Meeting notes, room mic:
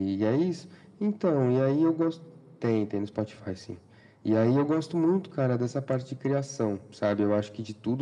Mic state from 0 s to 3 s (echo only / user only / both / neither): echo only